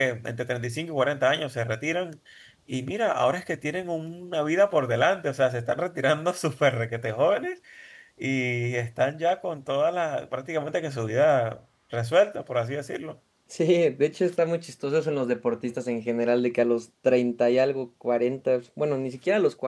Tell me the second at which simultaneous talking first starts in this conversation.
none

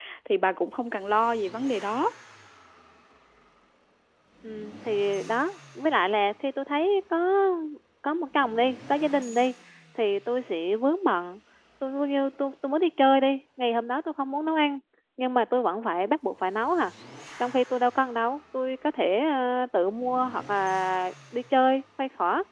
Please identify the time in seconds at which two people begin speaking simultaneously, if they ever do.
none

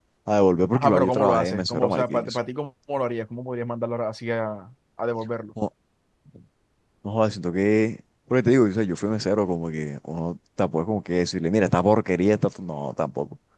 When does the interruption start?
1 s

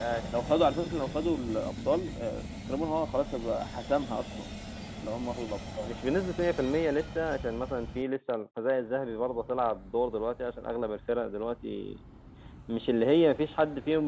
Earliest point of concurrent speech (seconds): none

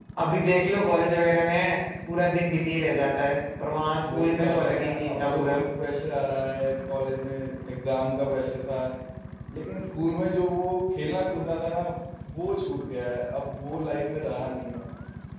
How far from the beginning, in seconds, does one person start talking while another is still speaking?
4 s

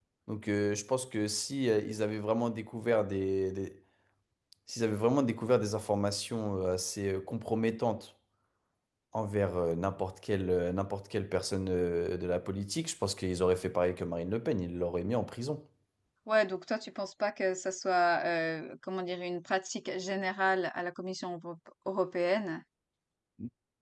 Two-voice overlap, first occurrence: none

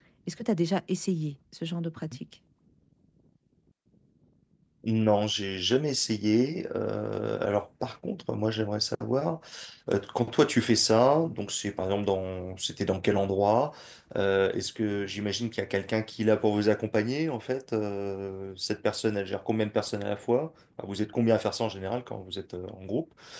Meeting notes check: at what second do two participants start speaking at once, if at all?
none

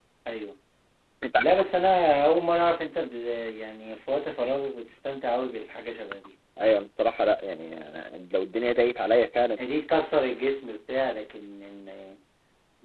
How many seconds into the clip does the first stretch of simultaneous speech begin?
none

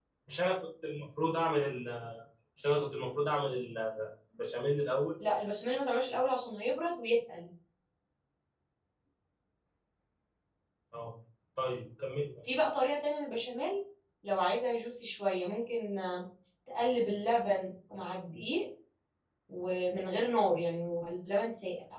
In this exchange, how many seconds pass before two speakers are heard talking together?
none

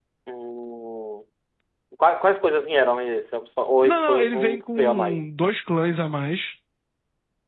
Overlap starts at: 4 s

